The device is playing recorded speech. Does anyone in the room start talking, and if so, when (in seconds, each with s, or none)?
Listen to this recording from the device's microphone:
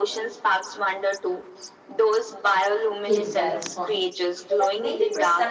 3.0 s